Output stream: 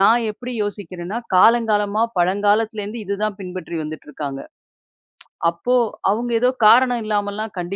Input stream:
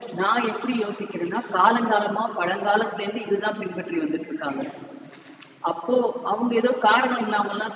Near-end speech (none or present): none